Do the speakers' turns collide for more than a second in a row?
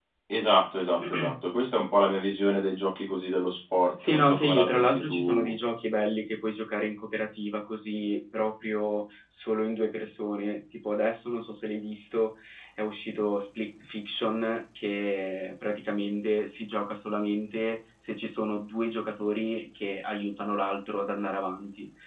Yes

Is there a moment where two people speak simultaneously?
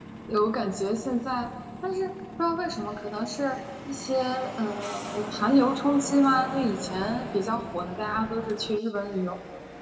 No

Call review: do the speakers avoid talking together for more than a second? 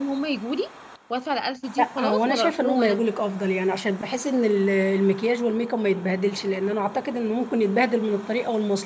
No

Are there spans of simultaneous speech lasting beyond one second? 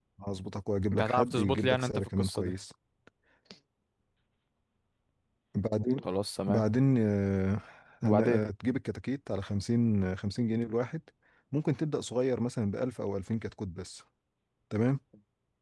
Yes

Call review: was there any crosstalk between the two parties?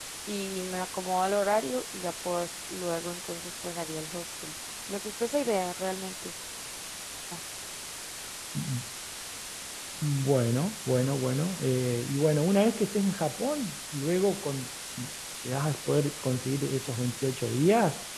No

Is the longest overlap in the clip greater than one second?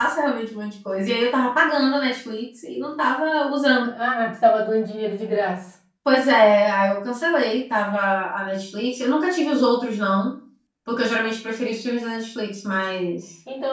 No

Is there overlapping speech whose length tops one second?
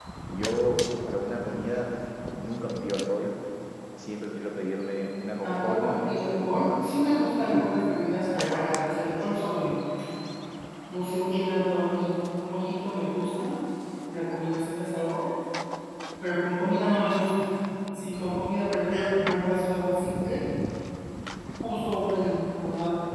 Yes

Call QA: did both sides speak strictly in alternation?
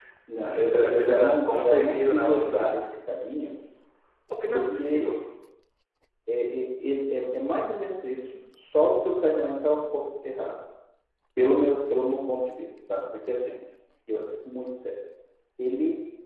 No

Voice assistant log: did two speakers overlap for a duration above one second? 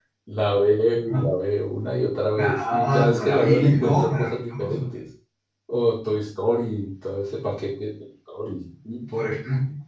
Yes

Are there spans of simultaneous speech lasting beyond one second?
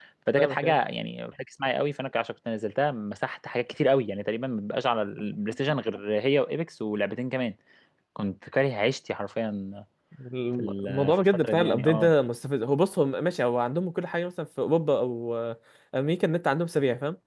Yes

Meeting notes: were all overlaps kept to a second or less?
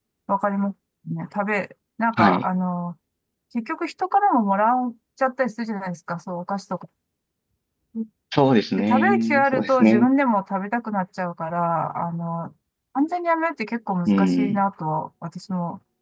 No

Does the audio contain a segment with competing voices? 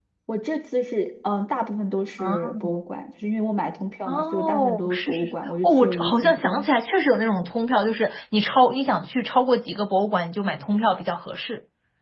Yes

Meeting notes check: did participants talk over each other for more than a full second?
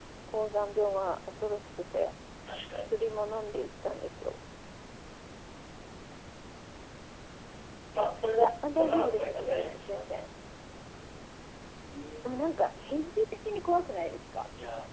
Yes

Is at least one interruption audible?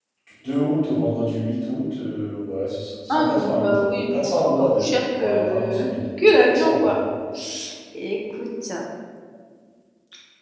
Yes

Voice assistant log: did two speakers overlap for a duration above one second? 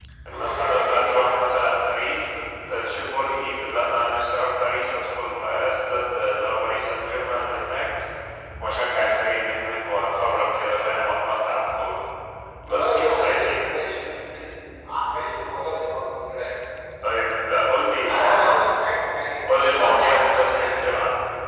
Yes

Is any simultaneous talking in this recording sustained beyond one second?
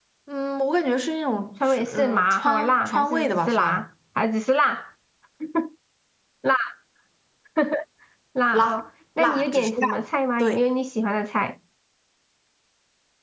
Yes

